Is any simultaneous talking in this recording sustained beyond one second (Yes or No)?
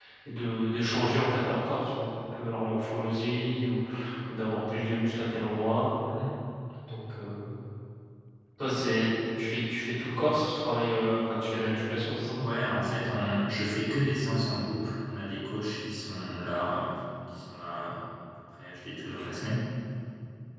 No